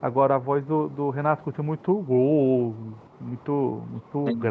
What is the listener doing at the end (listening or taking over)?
listening